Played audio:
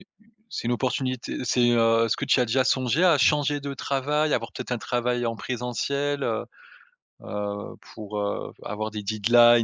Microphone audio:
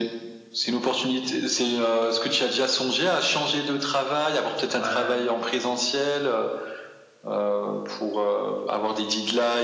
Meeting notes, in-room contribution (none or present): present